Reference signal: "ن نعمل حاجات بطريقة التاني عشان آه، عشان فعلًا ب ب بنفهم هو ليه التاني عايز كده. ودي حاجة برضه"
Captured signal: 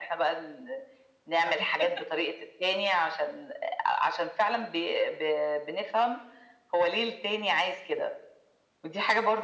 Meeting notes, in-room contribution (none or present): present